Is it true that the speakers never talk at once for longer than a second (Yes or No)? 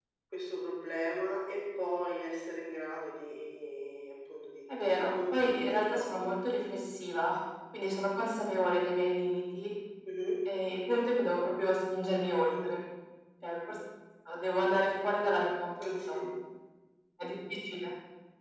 No